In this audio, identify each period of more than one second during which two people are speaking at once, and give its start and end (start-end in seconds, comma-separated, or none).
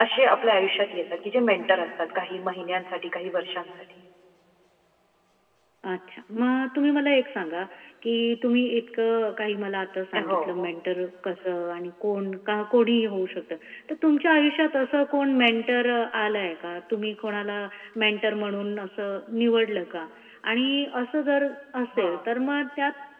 none